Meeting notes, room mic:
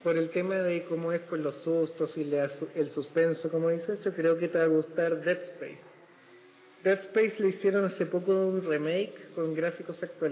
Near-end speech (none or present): none